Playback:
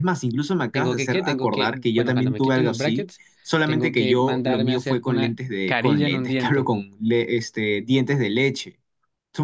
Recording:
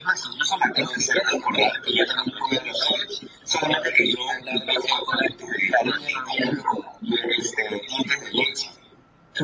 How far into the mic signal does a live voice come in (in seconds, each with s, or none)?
none